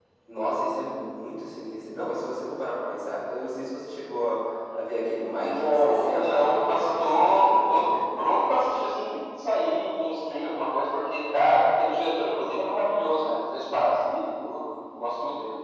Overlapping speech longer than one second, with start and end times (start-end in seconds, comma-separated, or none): 5.4-7.9